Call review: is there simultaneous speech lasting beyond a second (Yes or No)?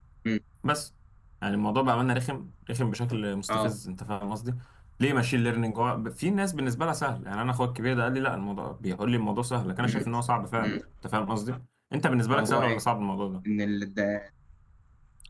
No